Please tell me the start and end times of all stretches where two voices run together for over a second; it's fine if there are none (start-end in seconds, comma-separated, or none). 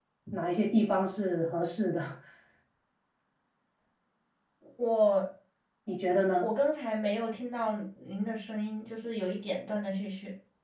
none